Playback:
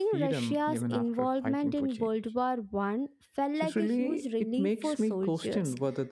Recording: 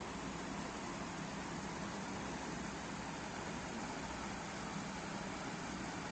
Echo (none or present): none